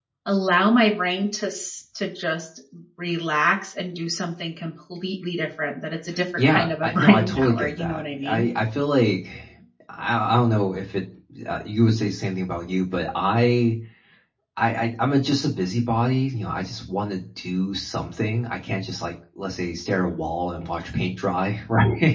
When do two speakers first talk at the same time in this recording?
6.4 s

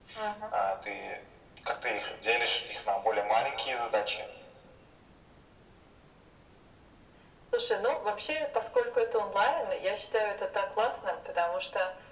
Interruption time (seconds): none

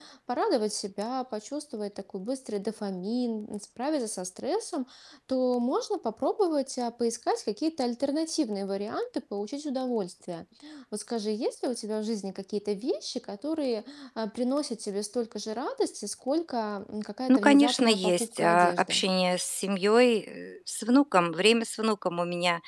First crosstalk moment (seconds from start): 17.3 s

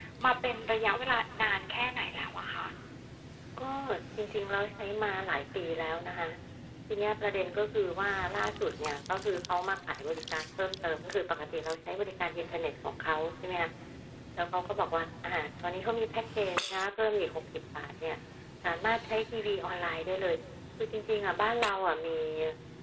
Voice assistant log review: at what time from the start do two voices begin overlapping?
none

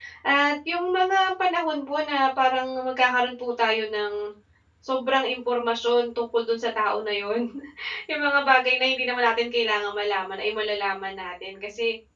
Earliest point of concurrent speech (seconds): none

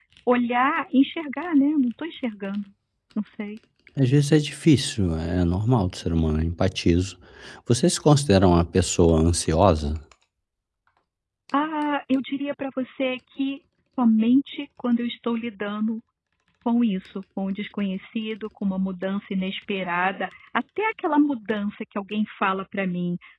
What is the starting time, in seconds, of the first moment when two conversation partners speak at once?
none

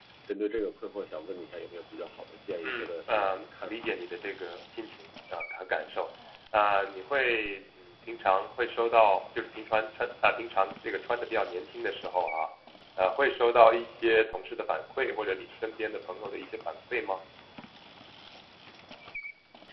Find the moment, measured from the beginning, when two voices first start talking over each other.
2.6 s

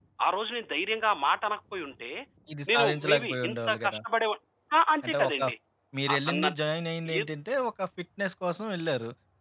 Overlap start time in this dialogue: 2.7 s

